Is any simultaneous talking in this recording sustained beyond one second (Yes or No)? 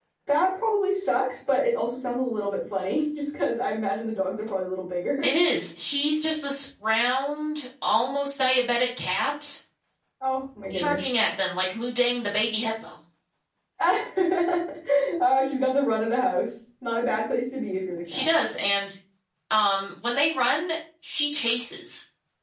No